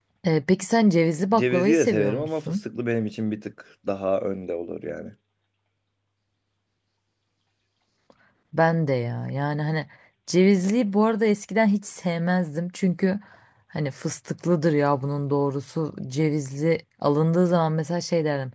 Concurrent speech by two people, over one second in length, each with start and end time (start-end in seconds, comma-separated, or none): 1.4-2.6